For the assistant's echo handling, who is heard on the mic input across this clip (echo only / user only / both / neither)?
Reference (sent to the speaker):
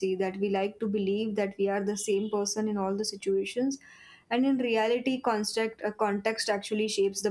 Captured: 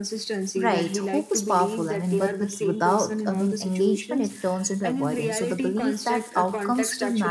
both